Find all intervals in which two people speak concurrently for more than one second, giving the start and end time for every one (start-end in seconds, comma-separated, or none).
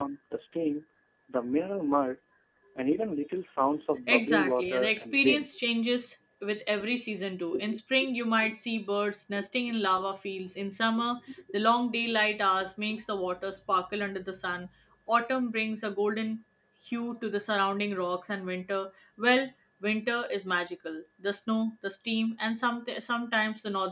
4.1-5.5